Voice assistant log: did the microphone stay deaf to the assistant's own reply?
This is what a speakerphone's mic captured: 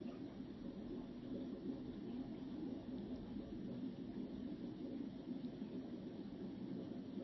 Yes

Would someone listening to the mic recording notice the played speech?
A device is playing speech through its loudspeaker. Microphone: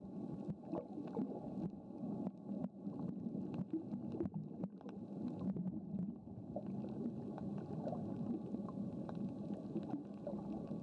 No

